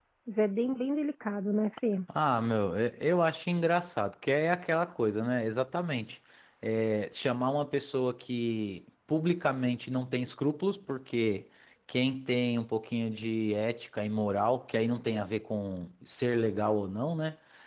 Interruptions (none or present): none